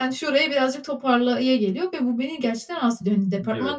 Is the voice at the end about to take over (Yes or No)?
No